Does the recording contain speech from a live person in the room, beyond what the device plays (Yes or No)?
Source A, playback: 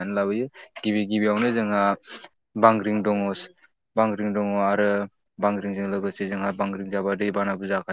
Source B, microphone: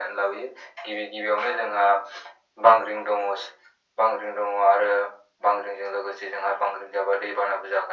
No